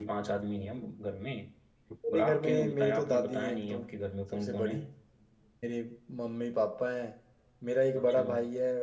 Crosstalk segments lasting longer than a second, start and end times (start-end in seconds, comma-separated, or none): 2.1-3.8